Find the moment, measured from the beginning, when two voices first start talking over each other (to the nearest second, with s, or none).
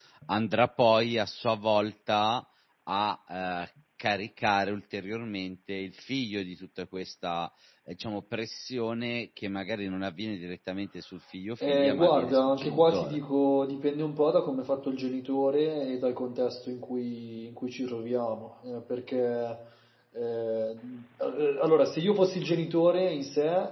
12 s